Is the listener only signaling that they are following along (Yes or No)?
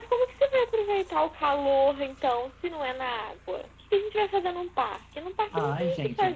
No